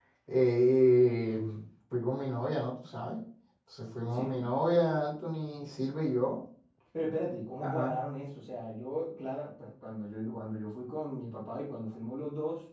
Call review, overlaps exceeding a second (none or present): none